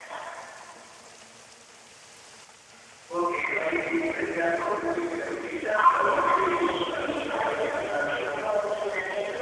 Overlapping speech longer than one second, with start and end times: 5.8-8.2

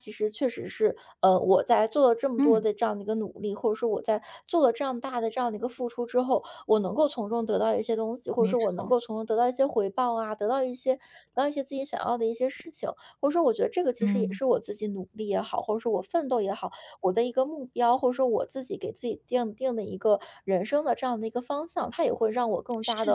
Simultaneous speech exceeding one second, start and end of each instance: none

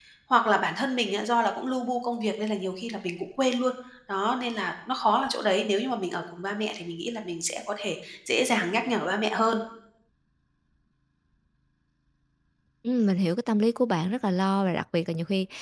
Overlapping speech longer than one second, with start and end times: none

